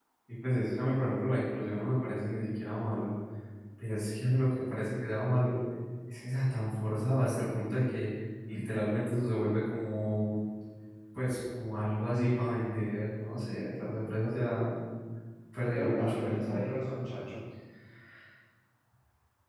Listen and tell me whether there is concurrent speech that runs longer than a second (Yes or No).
Yes